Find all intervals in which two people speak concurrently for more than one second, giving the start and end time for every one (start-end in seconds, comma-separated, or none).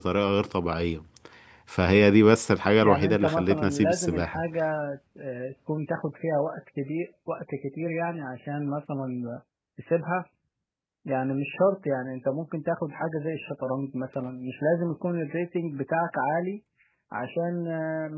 2.8-4.4